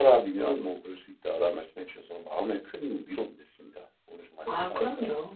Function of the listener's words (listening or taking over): taking over